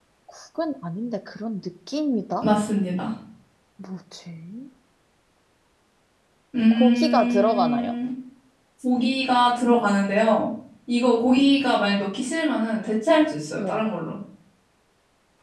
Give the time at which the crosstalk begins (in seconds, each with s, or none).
6.7 s